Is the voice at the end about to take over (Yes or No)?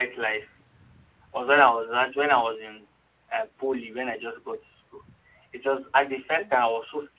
No